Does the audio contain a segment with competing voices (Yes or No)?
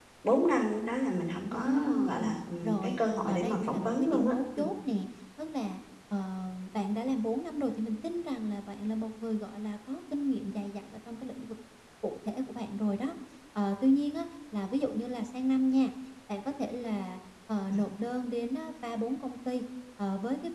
Yes